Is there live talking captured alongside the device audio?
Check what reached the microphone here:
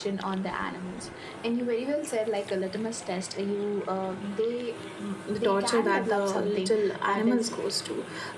Yes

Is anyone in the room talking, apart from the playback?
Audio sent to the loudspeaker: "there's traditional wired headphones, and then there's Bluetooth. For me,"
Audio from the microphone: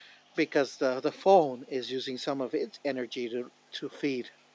Yes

